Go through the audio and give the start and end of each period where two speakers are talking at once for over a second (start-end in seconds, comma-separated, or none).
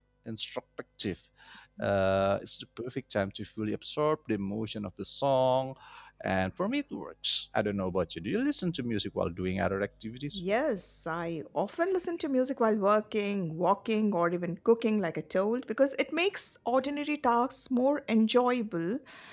none